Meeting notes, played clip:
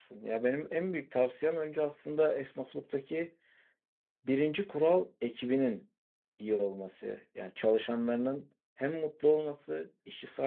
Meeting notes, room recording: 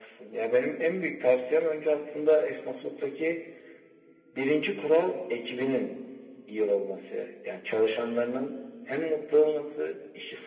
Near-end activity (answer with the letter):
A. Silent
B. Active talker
A